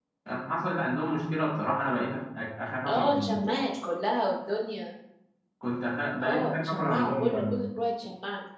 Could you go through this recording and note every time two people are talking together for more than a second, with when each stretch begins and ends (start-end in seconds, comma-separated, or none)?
6.2-7.7